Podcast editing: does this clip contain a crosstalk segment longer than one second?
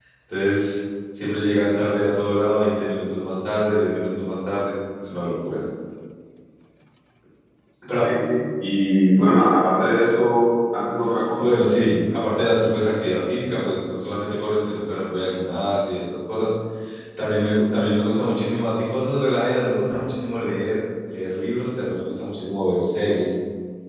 No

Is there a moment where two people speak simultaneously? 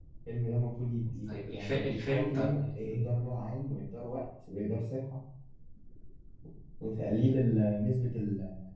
Yes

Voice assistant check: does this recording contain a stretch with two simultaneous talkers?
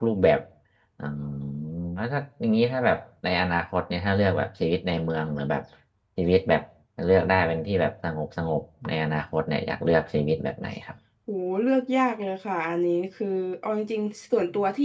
No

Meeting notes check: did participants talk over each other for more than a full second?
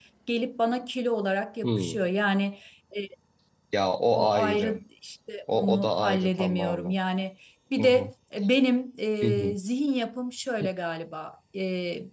Yes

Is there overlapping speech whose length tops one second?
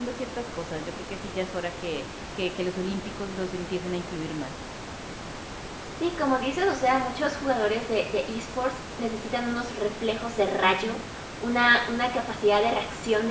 No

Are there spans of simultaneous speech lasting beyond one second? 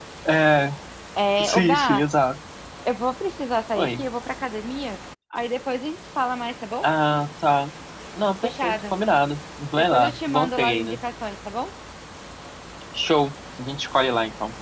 Yes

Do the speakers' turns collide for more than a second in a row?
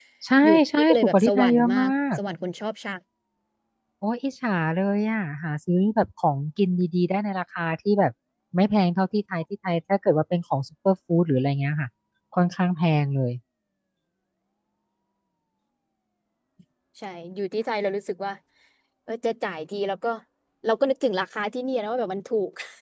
Yes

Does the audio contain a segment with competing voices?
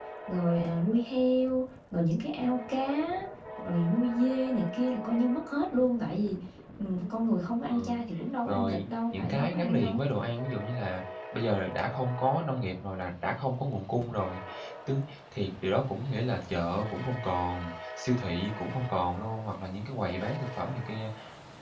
Yes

